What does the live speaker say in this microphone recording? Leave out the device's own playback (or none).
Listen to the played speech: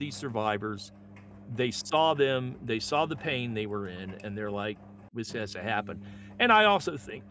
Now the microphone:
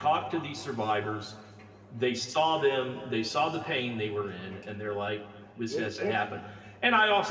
it it's